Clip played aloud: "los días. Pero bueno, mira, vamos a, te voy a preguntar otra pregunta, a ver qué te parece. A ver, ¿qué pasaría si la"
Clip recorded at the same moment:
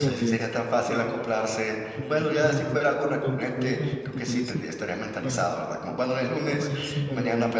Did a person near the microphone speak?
Yes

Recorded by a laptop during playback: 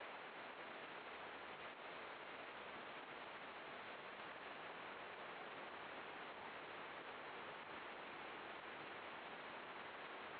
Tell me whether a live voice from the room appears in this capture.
No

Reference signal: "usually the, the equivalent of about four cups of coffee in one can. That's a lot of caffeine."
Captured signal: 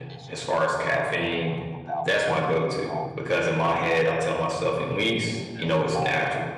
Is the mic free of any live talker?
No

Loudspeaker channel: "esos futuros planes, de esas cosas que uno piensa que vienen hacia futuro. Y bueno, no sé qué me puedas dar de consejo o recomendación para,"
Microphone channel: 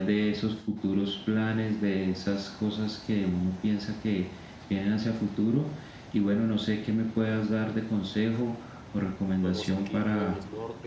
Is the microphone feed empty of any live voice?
No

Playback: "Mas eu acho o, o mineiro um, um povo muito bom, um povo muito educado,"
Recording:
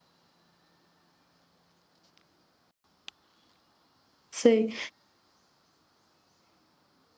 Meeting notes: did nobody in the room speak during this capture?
No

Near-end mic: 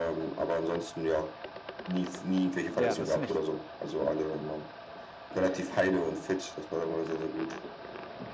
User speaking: Yes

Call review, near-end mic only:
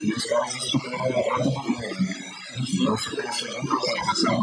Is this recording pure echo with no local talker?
Yes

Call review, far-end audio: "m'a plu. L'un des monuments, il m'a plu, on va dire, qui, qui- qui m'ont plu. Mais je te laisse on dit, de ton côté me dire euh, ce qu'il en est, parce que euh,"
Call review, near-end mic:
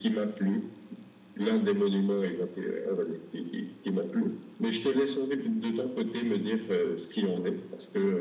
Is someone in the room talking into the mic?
No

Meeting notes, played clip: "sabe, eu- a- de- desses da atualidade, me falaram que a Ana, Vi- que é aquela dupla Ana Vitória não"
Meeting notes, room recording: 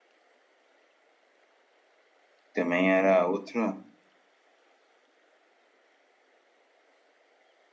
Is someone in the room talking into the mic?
Yes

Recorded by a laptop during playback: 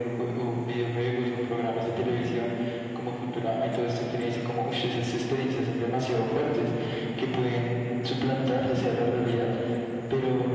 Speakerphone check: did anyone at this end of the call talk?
No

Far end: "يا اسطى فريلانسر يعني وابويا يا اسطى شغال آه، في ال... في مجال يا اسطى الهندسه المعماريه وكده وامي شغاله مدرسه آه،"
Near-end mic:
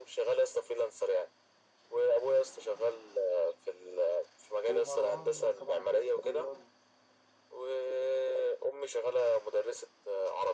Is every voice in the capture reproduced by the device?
No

